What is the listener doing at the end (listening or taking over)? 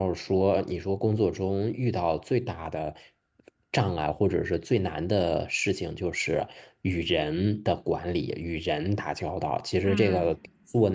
listening